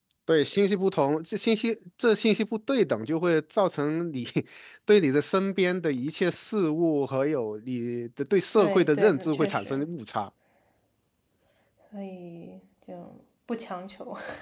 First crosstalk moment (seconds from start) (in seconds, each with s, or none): 8.6 s